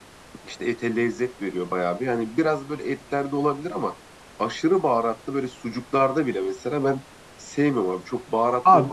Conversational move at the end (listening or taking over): taking over